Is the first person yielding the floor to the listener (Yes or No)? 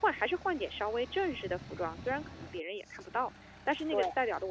No